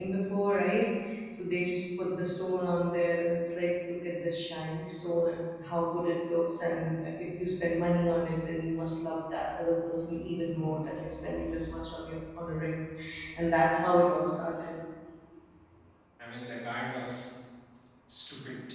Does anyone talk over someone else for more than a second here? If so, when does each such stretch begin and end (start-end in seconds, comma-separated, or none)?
none